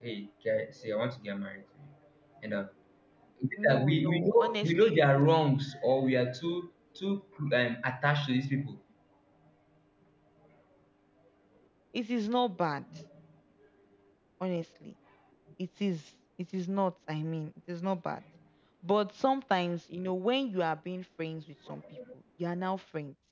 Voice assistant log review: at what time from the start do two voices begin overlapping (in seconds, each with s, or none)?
3.6 s